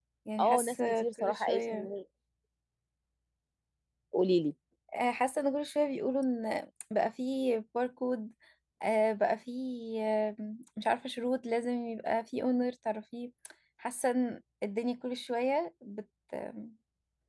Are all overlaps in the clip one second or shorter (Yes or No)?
No